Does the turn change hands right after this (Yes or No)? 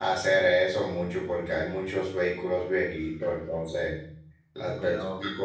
No